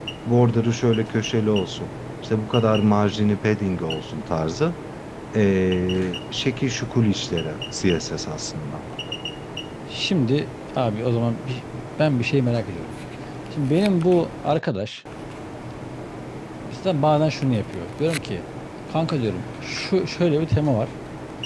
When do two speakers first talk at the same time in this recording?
none

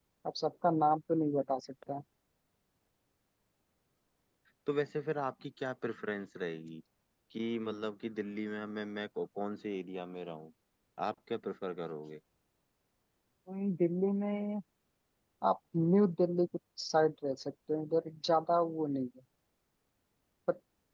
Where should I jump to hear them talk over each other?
none

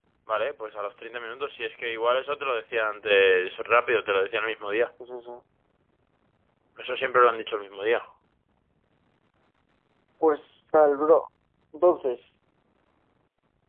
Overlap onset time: none

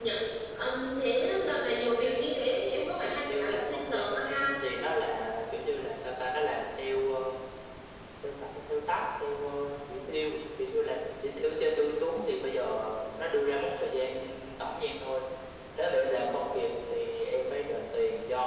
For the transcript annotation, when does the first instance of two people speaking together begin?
3.2 s

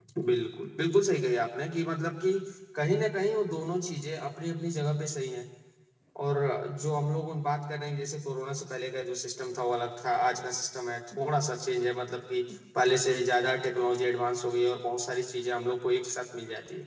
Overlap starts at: none

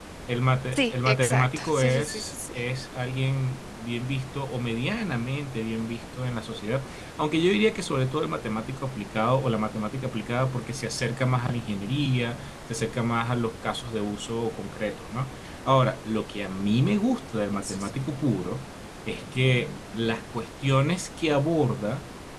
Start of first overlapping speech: 0.7 s

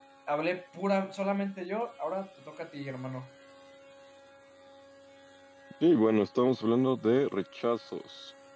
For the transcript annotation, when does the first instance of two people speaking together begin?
none

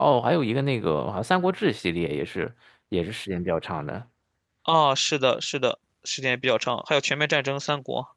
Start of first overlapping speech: none

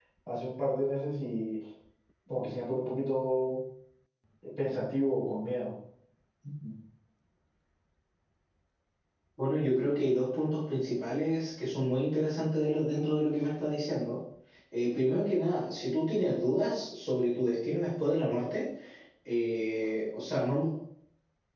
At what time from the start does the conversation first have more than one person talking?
none

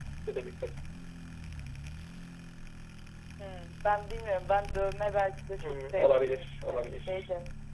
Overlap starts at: 5.6 s

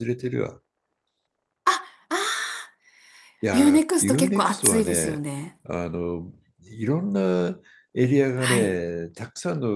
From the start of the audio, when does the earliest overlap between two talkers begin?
3.5 s

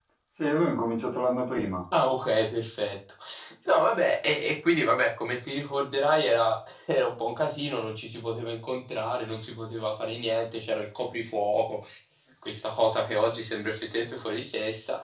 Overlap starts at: none

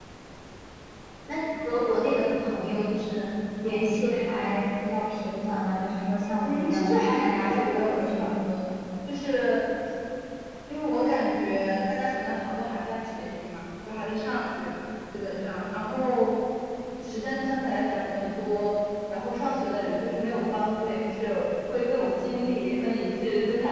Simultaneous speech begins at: 6.4 s

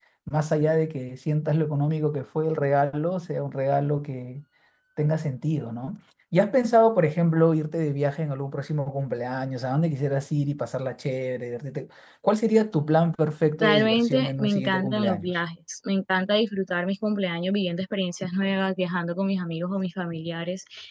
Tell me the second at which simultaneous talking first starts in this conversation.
13.6 s

